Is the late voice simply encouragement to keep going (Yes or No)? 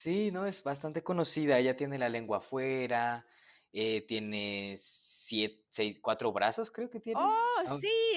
No